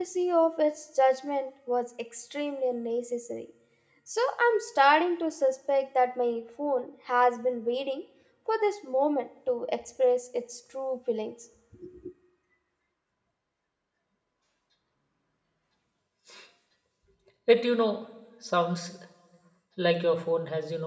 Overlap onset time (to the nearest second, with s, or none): none